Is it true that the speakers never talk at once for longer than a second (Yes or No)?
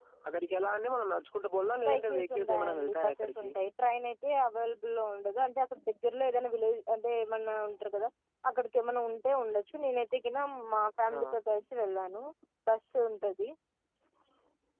No